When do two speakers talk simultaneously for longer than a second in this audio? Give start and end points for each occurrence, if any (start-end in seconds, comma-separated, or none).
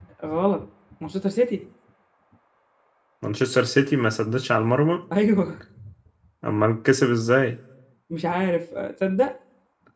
none